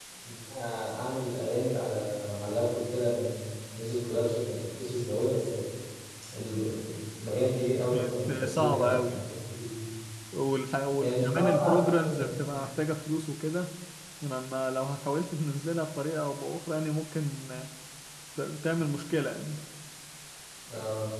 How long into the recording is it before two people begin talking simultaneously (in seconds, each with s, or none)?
7.9 s